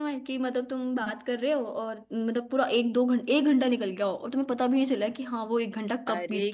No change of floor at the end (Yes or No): No